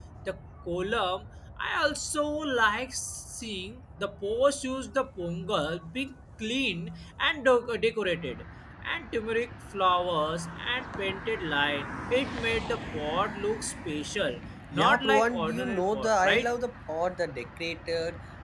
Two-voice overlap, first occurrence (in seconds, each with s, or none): 14.7 s